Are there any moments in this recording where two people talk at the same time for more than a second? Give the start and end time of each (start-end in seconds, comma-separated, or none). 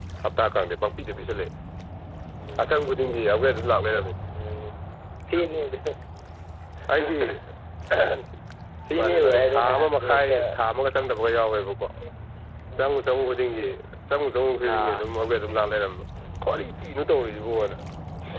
9.0-10.4